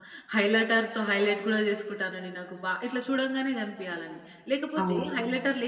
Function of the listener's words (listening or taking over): listening